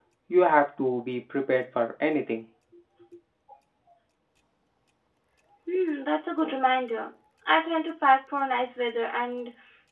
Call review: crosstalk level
none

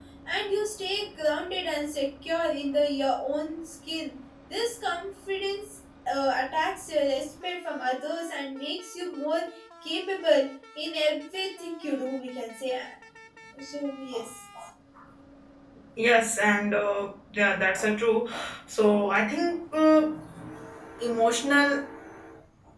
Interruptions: none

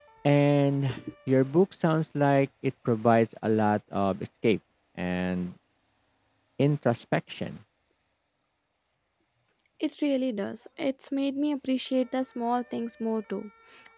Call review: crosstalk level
none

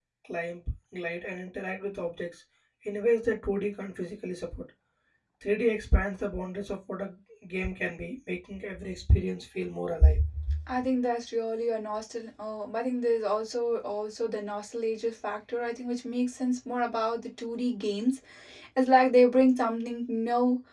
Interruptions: none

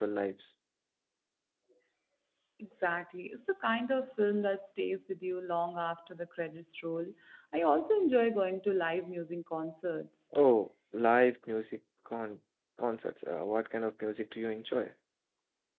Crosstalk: none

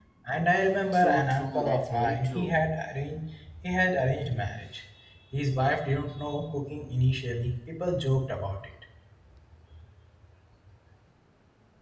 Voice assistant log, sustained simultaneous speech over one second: present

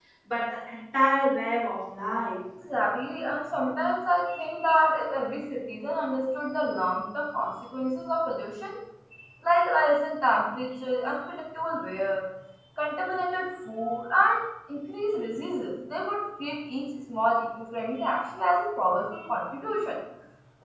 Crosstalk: none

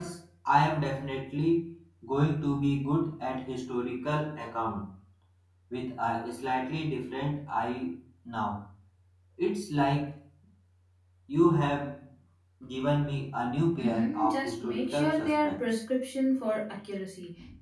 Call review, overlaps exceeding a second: present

